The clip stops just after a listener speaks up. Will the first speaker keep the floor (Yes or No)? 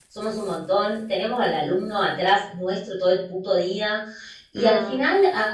Yes